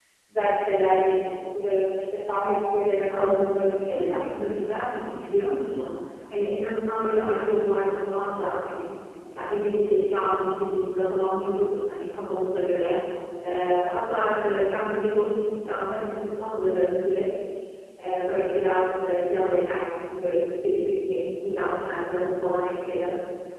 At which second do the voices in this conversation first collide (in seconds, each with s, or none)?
3.1 s